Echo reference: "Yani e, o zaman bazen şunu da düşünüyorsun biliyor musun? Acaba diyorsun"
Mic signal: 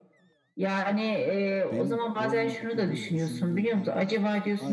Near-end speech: present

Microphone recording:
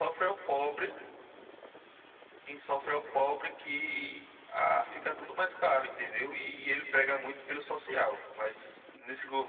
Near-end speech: none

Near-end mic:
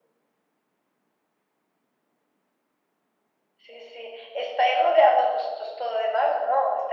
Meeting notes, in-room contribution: none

